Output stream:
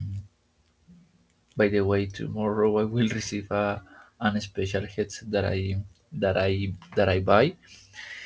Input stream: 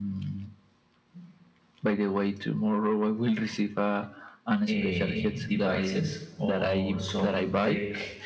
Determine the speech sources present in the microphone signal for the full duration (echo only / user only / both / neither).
both